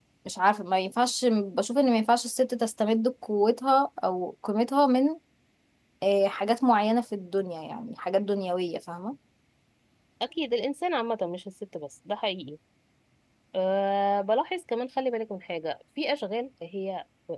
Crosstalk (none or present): none